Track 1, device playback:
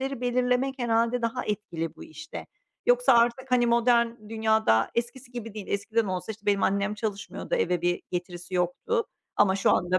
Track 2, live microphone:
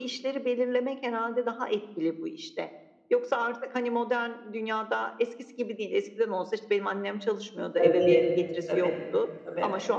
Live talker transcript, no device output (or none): Tabii, tabii, tabii.